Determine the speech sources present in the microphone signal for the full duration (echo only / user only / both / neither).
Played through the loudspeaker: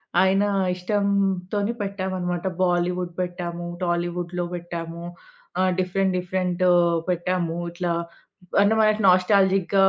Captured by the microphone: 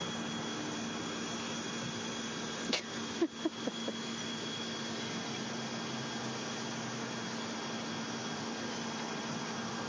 neither